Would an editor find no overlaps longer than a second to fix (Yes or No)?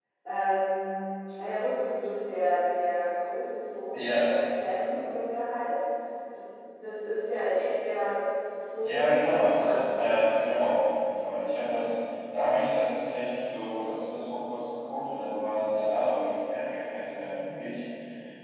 No